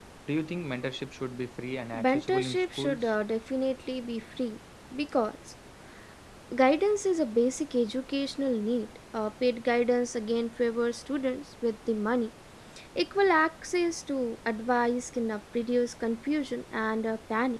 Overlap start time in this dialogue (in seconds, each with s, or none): 1.9 s